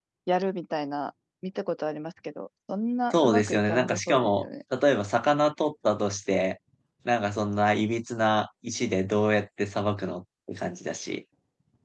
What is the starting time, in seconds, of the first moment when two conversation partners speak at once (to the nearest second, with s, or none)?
3 s